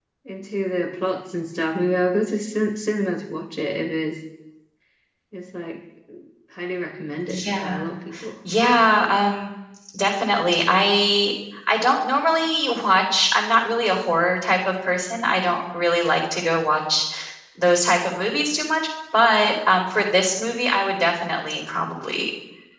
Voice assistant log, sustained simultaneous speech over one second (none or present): none